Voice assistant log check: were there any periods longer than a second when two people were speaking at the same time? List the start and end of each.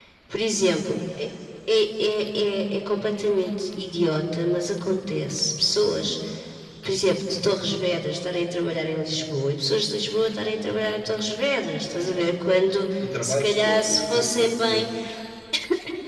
13.0-14.8

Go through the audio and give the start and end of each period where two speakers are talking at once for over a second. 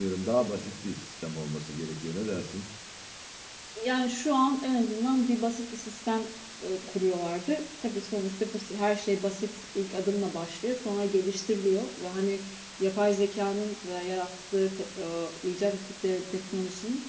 none

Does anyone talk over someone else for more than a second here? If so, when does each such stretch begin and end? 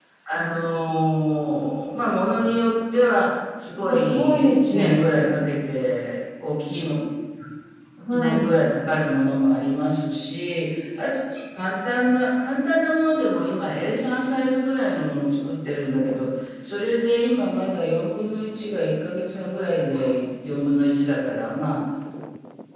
3.8-5.1

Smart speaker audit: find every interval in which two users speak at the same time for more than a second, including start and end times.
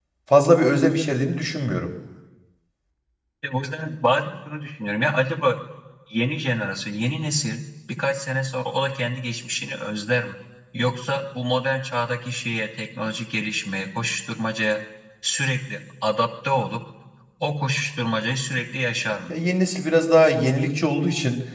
none

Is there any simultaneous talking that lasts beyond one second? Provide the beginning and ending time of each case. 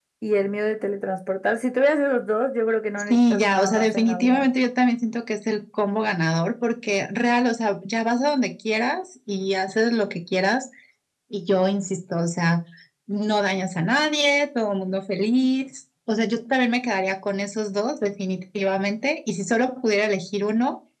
3.1-4.5

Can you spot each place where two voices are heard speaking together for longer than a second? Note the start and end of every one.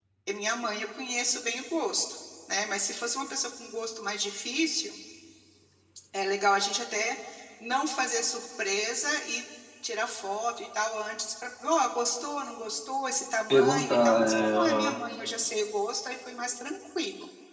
13.5-14.9

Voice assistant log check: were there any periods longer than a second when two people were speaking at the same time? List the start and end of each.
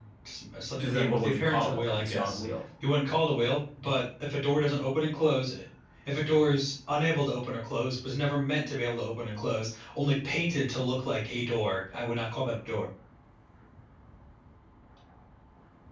0.8-2.4

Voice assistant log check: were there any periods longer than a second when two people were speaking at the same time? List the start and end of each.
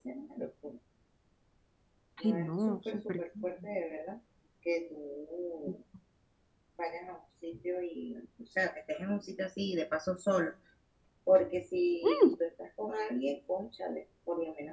2.2-3.5

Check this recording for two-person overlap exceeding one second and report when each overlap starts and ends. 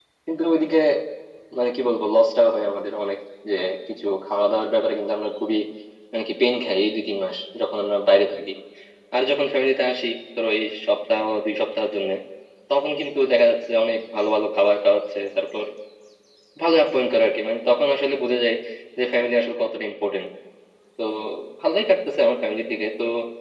none

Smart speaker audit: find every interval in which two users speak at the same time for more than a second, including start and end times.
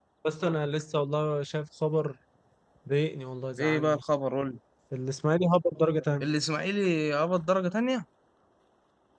none

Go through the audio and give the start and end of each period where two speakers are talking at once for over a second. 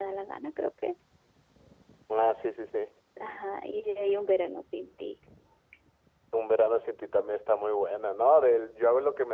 none

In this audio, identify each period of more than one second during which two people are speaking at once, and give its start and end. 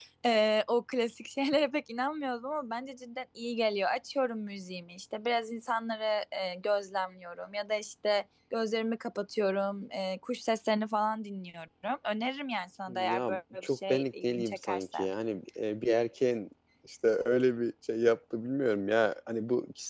12.9-15.0

